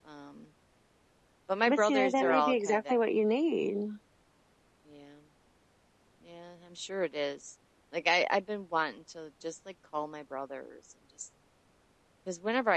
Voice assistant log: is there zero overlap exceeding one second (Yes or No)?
No